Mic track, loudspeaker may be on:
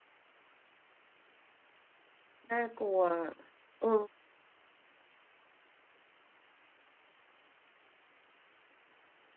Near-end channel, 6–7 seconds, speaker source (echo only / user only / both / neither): neither